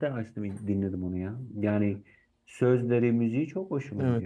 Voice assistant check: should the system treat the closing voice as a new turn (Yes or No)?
Yes